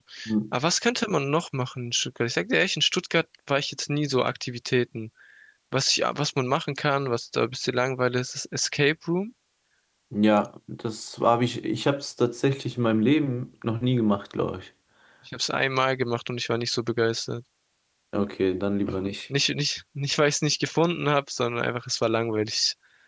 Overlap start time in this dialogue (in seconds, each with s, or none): none